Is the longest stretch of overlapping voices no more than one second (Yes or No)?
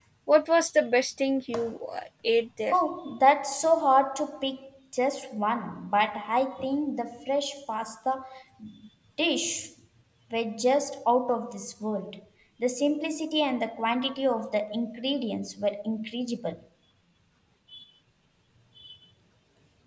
Yes